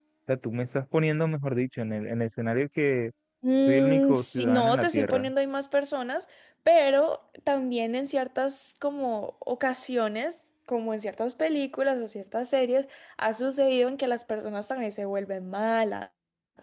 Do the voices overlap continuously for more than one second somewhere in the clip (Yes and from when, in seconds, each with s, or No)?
Yes, from 3.7 s